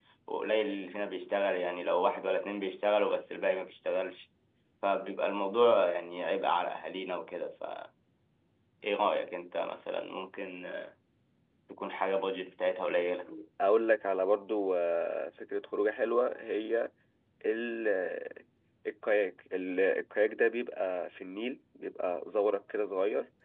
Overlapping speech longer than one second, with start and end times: none

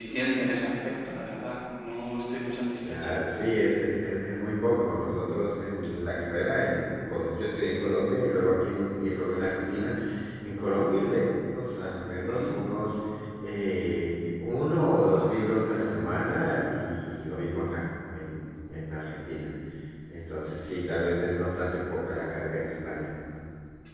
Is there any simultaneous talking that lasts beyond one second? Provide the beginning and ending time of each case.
none

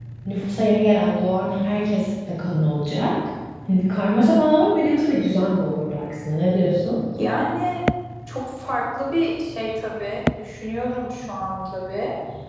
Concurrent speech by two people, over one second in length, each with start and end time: none

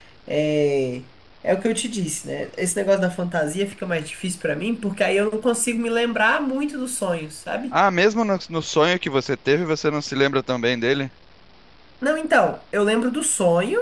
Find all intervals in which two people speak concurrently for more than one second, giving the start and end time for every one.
none

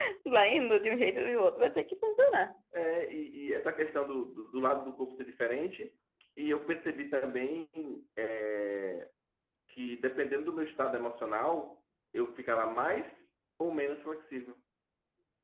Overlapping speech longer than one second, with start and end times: none

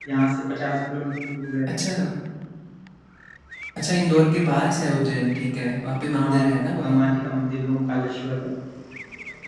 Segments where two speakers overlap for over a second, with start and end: none

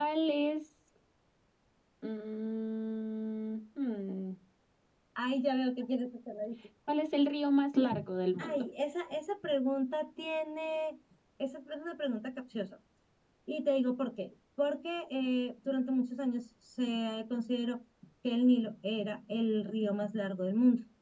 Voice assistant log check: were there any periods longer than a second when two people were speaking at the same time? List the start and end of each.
none

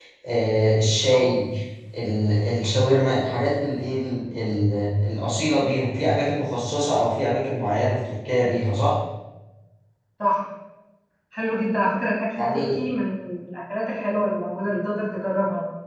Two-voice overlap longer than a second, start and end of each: none

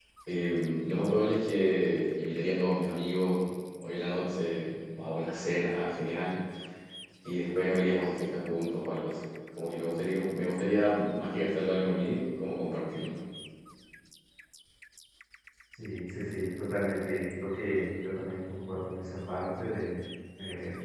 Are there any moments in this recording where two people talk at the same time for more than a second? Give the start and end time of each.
none

